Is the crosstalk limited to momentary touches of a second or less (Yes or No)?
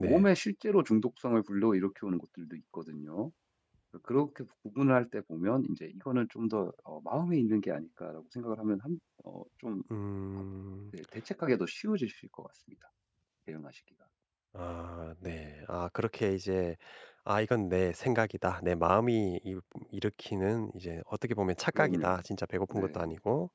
Yes